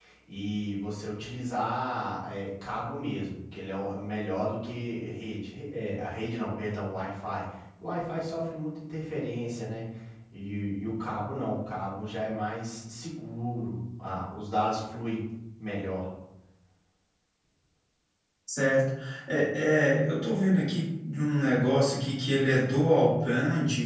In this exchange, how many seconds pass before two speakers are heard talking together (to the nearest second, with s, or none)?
none